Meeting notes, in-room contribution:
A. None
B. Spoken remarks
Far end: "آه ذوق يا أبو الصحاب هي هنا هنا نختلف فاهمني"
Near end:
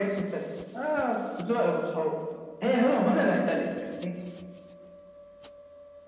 A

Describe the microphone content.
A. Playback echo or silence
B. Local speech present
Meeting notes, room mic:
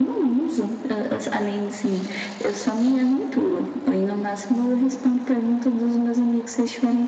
A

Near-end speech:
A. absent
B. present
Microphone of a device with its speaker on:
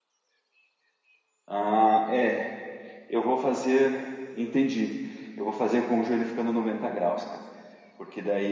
B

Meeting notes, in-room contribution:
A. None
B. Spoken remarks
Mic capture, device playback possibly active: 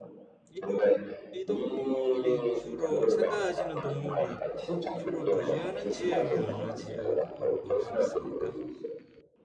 B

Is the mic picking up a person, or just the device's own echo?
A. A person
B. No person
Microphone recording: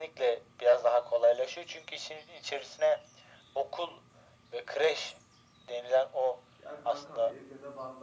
A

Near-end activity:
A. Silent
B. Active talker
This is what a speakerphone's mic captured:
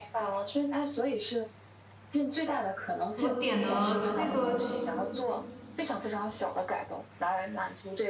B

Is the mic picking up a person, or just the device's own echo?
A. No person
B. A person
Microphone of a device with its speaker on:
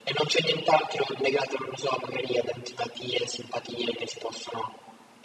A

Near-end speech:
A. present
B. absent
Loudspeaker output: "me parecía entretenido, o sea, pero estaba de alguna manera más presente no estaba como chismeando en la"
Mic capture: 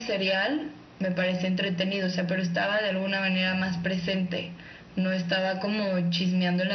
B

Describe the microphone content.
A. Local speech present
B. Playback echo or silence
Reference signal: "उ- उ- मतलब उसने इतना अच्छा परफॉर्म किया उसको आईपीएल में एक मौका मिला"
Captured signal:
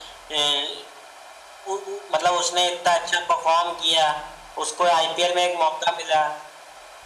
B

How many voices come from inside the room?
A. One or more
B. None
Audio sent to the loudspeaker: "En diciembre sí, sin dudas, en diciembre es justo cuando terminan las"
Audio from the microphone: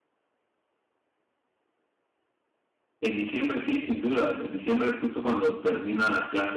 B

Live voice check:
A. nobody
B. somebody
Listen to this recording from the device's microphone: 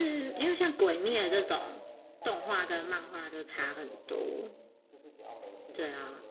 B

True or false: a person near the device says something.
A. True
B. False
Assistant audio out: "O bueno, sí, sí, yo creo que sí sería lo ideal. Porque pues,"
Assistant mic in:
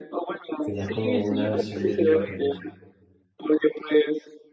A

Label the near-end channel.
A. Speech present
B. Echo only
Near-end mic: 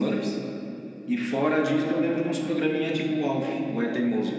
B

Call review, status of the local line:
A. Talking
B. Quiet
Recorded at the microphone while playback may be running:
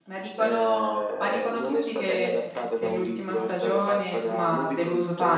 A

